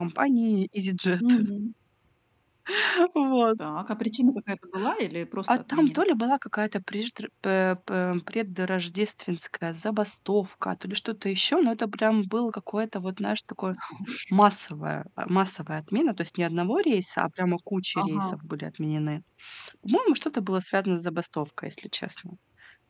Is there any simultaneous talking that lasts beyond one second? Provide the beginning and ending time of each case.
none

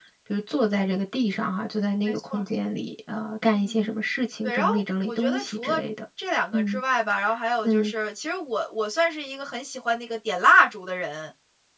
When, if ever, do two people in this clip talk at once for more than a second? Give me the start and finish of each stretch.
4.4-5.8

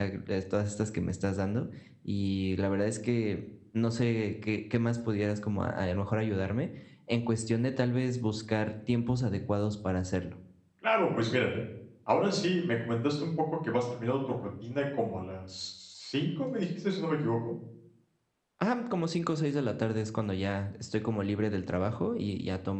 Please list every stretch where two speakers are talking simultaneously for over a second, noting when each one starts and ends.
none

